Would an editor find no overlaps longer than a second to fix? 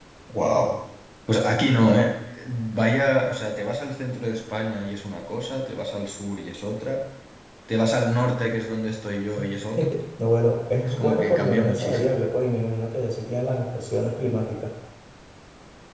No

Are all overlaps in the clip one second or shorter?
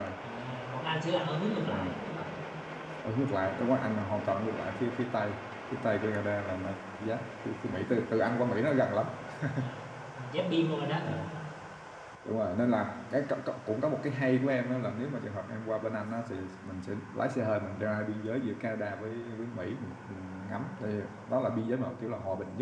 Yes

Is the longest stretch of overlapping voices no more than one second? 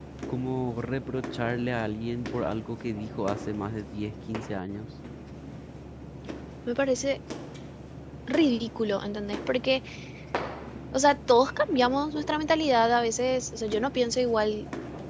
Yes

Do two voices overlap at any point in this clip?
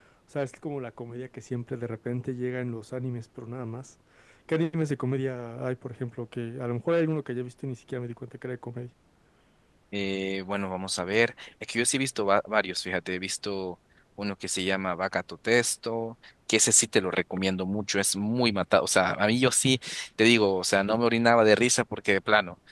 No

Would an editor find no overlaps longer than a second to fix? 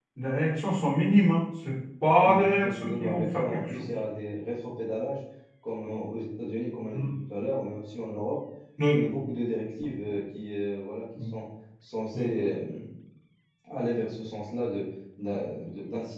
No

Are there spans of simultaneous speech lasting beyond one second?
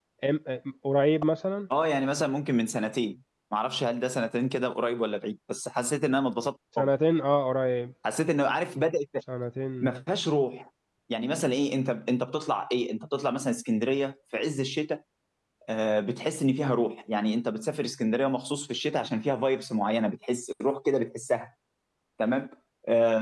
No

